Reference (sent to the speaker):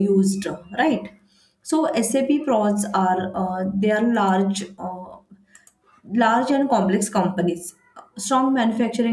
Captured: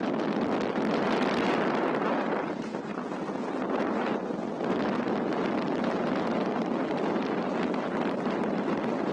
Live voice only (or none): none